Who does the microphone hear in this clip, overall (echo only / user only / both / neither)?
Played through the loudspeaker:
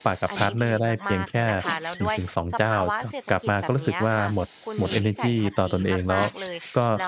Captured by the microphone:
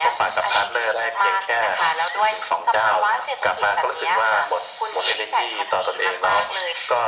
echo only